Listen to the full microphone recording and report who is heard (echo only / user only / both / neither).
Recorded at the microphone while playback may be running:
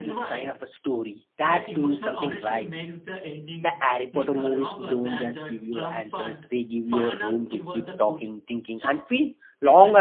both